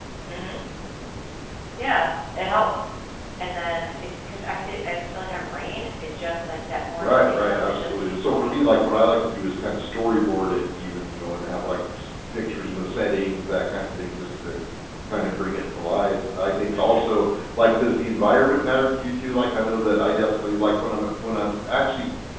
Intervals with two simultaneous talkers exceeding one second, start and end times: 7.0-8.5

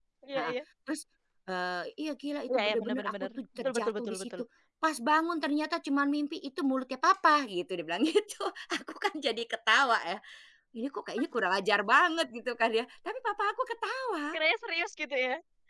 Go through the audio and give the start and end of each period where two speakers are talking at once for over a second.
2.5-4.3

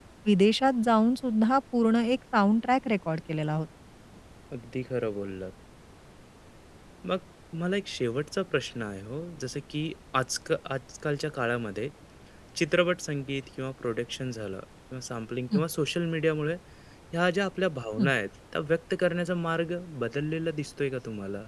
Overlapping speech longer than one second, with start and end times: none

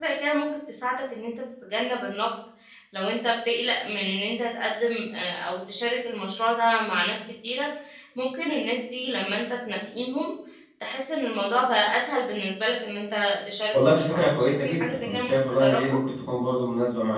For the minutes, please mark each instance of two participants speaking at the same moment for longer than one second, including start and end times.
13.7-16.0

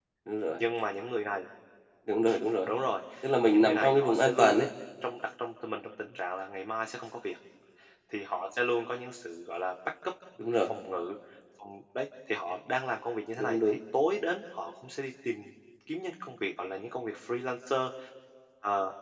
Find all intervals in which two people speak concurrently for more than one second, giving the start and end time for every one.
3.4-4.7

